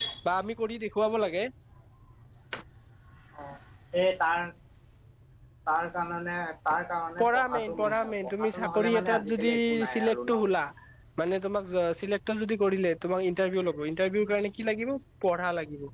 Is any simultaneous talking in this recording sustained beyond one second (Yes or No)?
Yes